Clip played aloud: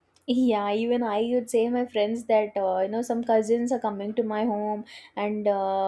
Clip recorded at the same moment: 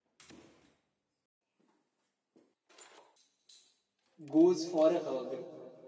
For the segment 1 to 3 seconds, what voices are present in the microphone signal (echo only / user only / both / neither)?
neither